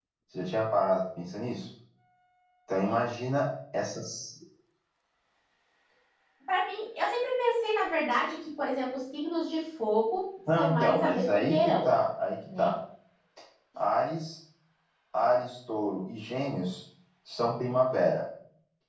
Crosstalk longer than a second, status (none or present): present